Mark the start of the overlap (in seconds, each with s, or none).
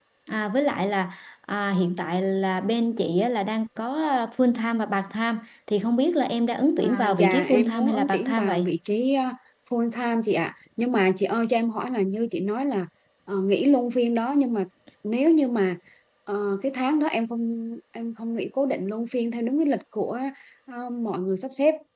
6.8 s